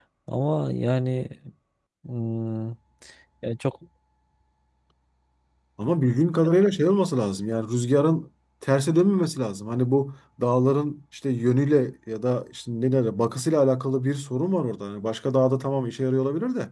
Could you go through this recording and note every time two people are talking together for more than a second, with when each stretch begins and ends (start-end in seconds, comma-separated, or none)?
none